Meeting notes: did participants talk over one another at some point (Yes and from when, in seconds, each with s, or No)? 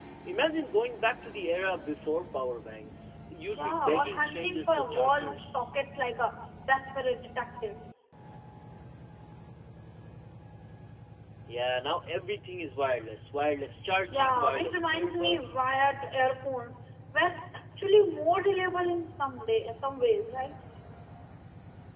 Yes, from 3.5 s